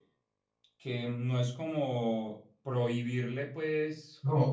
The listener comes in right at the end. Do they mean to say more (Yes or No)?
No